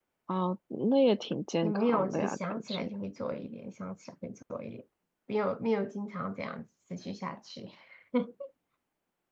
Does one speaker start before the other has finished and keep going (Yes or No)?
Yes